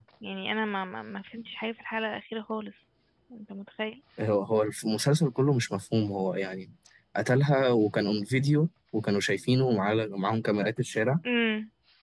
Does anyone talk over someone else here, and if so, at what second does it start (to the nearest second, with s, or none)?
none